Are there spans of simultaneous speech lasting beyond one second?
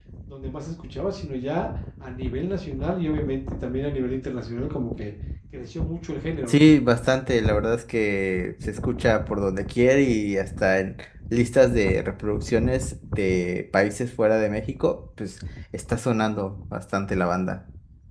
No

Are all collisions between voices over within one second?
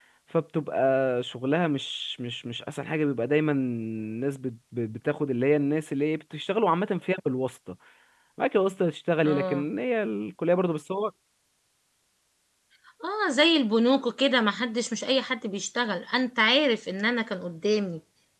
Yes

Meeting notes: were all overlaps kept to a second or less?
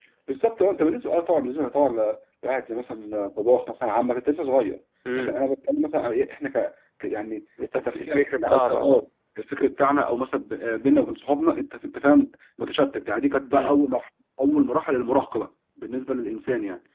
No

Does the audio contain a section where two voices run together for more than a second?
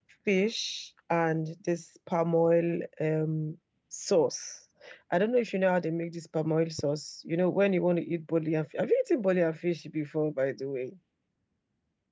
No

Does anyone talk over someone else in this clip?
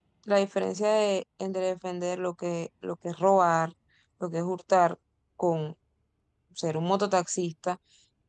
No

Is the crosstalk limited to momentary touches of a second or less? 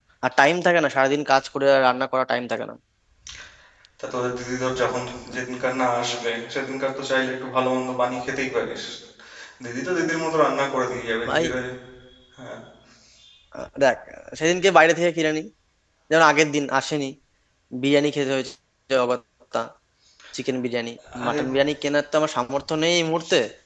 Yes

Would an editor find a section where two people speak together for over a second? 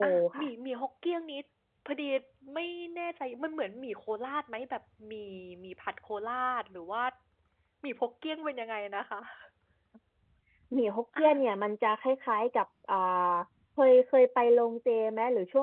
No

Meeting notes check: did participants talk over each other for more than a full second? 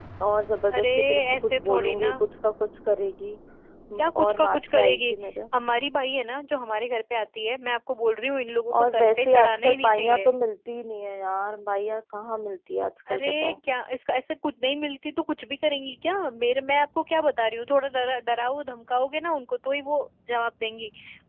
Yes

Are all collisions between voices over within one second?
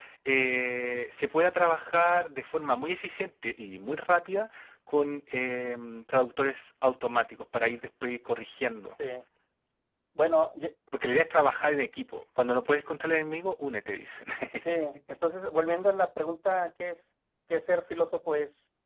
Yes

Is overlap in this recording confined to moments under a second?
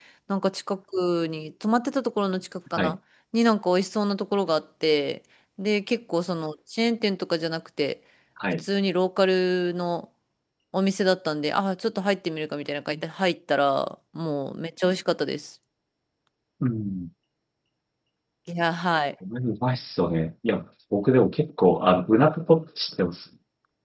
Yes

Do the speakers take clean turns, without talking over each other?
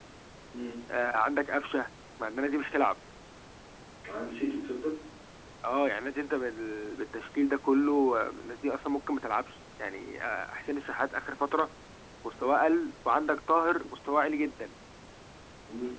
Yes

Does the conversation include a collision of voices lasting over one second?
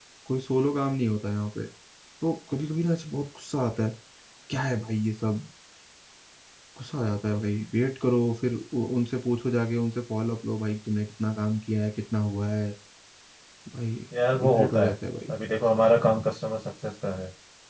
No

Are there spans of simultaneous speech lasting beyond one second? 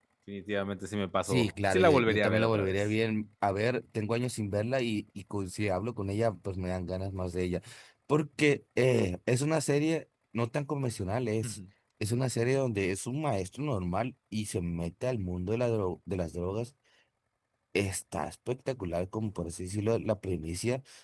Yes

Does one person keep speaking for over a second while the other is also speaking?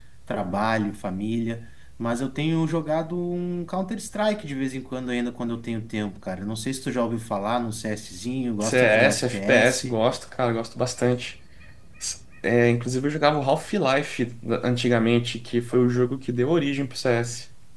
Yes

